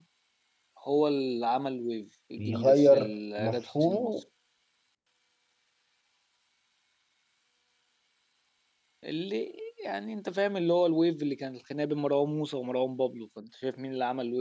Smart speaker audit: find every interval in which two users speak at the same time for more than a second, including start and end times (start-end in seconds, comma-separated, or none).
2.4-4.2